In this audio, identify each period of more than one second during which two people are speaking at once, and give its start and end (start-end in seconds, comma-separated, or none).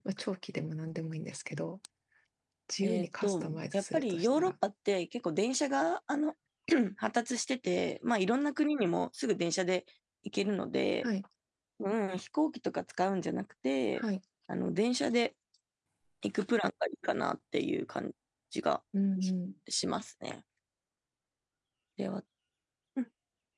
2.8-4.5